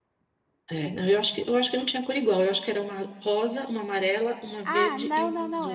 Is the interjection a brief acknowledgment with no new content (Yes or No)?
No